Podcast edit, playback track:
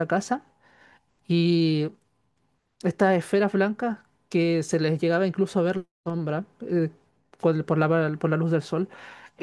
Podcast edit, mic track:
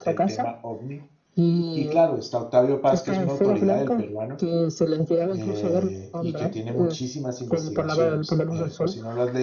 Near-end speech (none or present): present